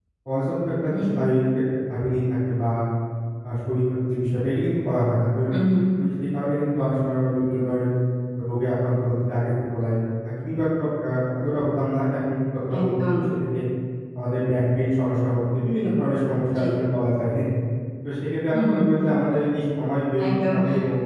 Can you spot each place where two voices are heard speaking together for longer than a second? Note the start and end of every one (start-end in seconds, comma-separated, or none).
none